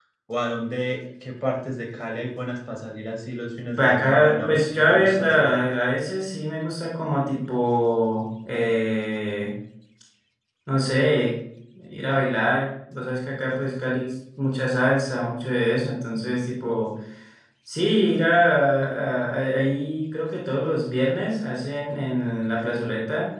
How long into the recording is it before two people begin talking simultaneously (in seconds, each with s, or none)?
3.8 s